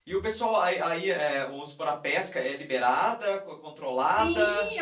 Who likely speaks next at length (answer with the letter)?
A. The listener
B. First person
A